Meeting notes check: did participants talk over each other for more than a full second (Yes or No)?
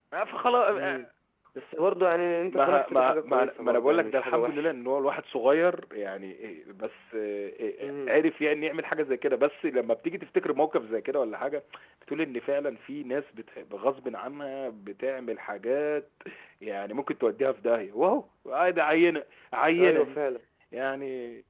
Yes